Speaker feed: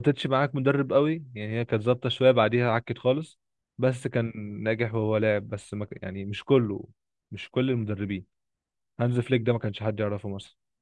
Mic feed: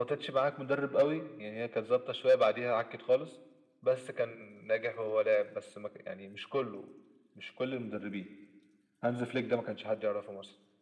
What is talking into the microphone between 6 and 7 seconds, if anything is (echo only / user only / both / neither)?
echo only